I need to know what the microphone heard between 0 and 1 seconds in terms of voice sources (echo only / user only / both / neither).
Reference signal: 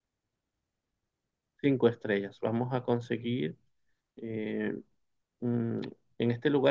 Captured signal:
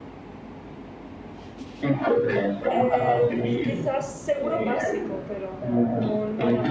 neither